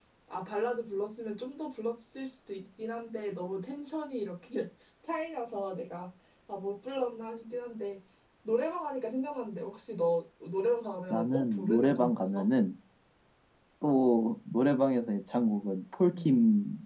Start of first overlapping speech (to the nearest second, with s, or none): 11 s